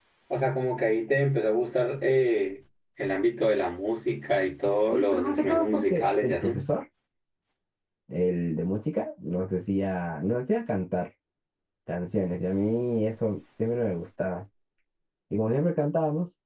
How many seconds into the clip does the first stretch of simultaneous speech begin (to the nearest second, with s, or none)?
5 s